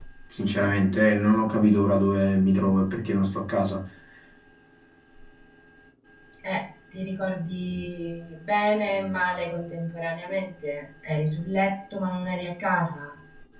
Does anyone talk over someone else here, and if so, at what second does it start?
none

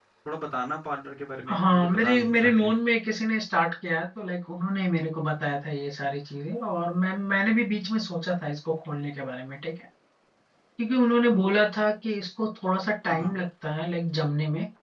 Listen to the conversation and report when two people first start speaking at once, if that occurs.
1.5 s

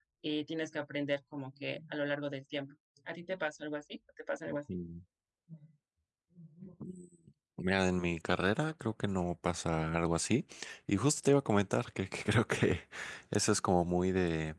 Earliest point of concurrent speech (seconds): none

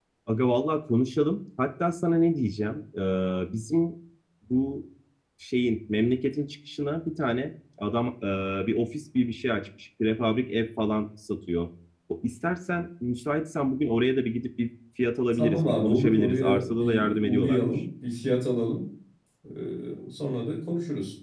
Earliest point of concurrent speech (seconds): 15.3 s

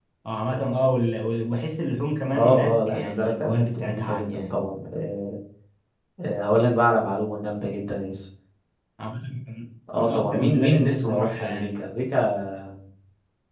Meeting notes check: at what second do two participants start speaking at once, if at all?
2.3 s

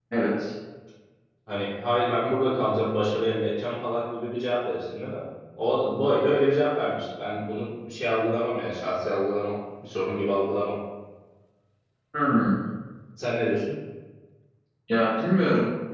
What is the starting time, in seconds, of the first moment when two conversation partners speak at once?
none

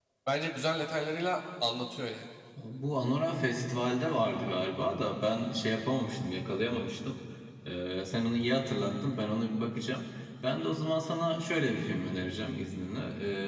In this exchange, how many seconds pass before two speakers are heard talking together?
none

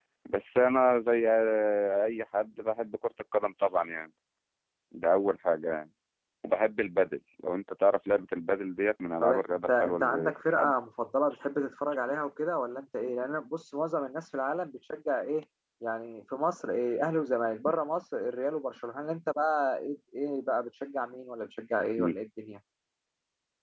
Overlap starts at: 9.2 s

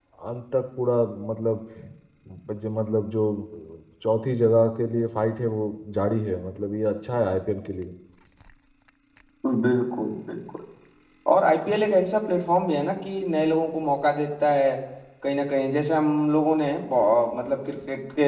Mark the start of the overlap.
none

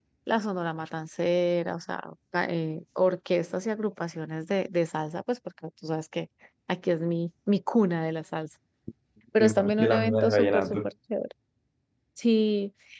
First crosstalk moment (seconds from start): 9.4 s

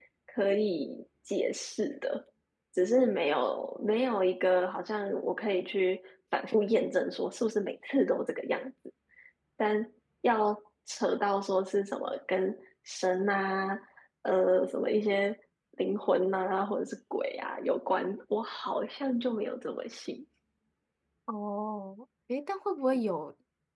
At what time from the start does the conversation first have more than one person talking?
none

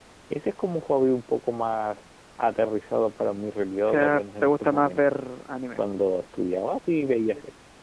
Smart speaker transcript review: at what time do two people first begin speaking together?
3.8 s

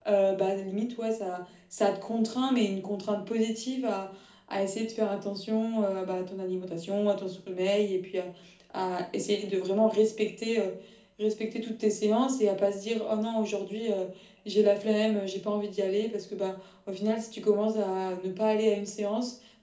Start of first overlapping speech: none

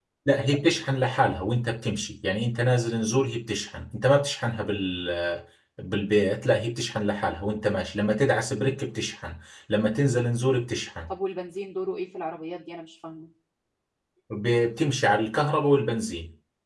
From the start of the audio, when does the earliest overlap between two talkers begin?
none

